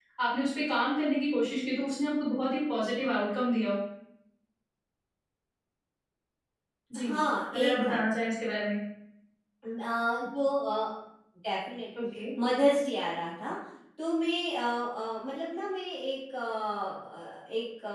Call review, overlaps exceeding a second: none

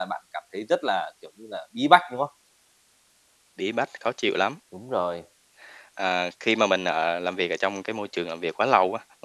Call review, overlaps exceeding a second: none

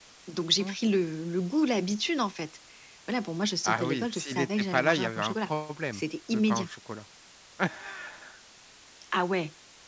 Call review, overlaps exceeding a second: present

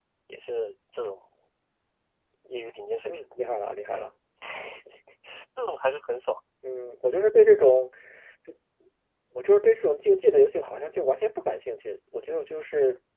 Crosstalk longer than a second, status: none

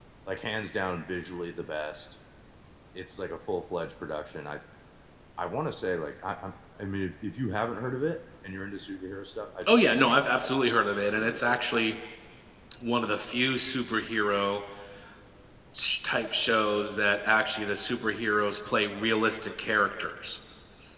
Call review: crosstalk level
present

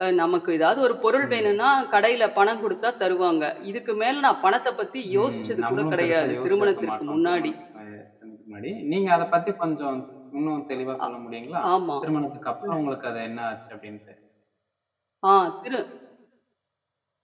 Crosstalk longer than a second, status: present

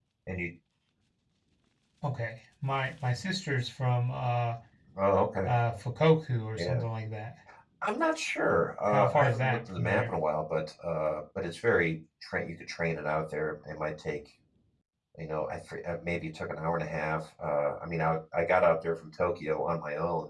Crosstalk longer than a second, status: present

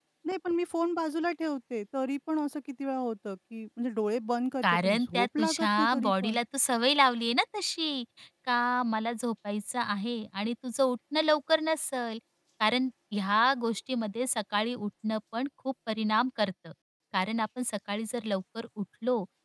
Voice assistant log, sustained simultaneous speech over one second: present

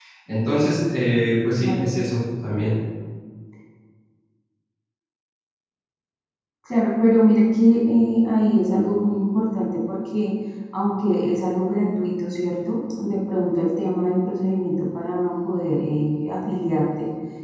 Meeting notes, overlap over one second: none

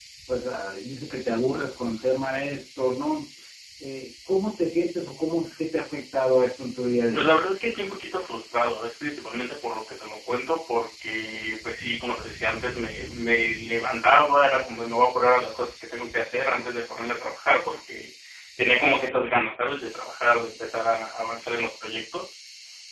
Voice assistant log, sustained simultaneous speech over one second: none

